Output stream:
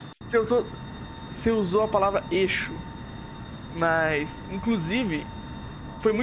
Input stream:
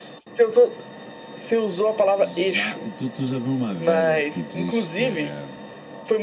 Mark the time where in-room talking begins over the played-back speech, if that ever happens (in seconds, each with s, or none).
2.2 s